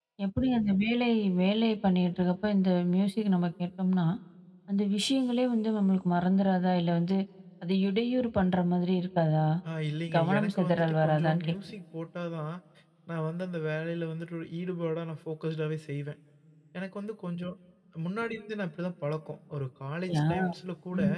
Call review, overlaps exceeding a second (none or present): present